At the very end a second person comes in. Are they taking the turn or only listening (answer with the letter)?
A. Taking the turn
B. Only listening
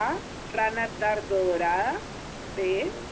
B